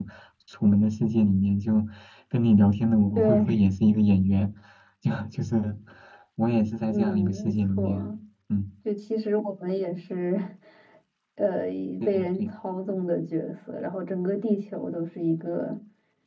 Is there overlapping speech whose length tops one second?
Yes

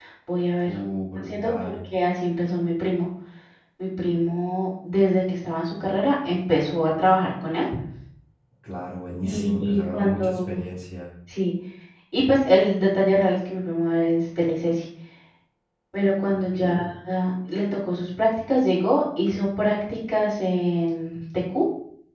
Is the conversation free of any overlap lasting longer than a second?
No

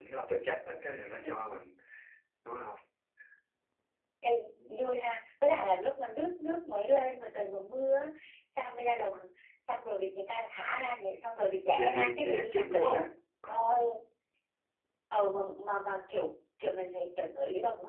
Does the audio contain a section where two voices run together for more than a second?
Yes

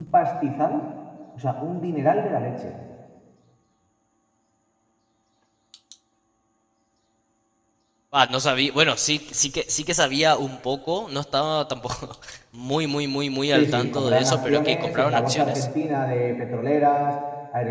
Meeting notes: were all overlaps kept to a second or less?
No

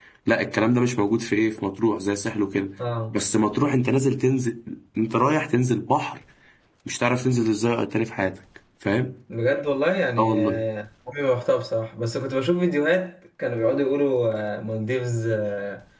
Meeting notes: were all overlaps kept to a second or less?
Yes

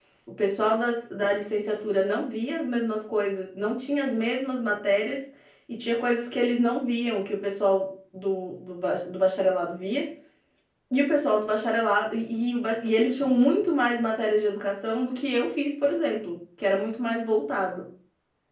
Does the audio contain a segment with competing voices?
No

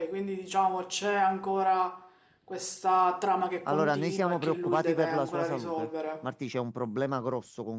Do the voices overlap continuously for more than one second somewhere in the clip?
Yes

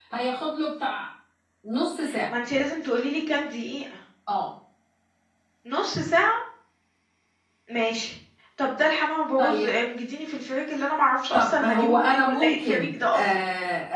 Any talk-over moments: Yes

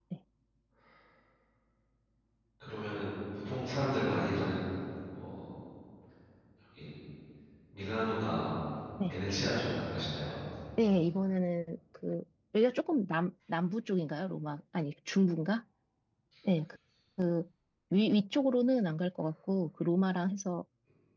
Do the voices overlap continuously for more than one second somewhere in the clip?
No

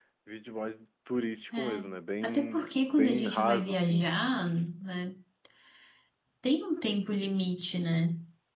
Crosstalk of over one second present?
Yes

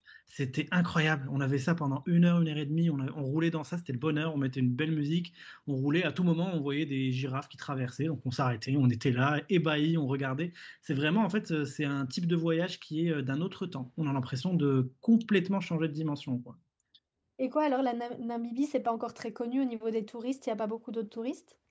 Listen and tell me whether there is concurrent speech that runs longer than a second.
No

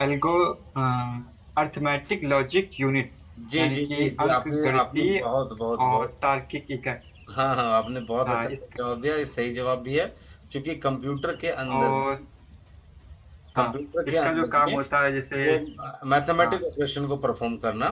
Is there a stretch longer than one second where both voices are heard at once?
Yes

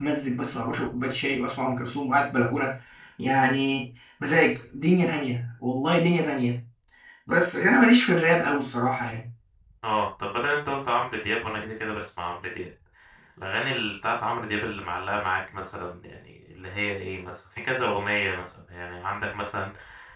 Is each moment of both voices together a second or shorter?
Yes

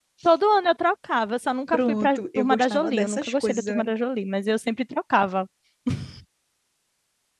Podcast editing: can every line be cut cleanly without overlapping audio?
No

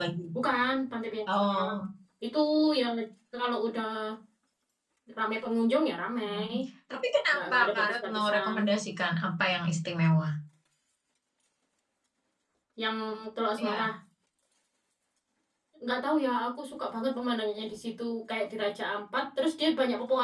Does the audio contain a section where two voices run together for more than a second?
Yes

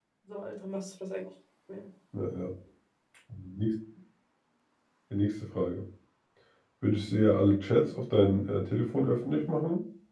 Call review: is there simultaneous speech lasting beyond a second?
No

